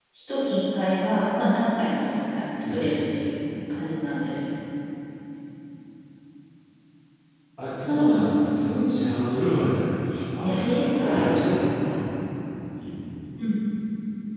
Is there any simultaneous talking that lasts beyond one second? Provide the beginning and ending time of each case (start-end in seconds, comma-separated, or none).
10.4-11.7